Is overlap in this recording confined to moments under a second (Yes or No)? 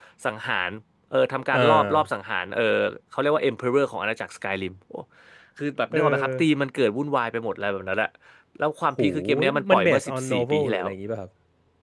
No